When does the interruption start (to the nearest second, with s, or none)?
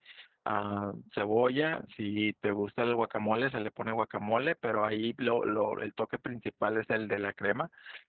none